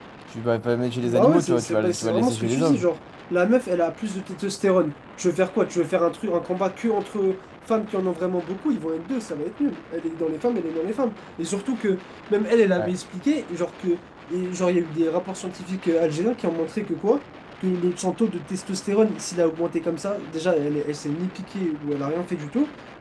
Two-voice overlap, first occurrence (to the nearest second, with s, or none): 1 s